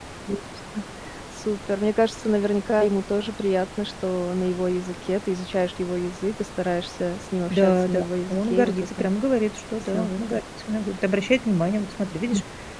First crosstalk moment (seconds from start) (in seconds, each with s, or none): 7.5 s